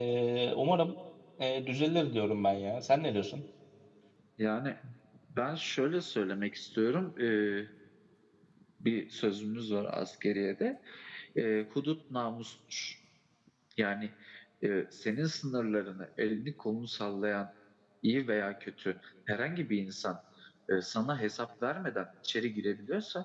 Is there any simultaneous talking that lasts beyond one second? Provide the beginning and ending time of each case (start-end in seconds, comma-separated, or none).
none